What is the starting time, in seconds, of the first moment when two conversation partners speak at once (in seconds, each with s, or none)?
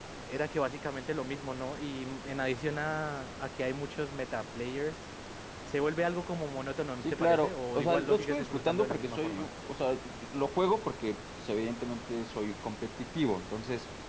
7.0 s